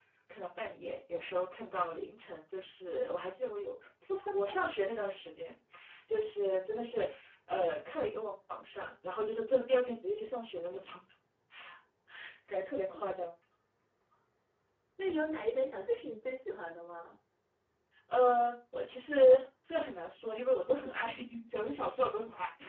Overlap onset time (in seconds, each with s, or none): none